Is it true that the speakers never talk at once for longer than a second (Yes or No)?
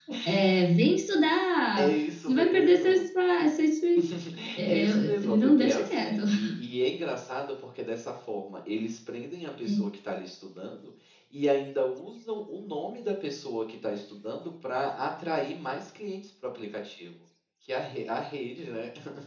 No